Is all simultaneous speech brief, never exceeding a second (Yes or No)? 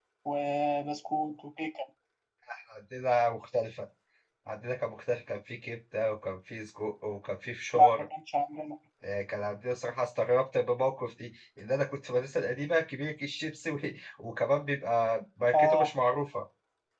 Yes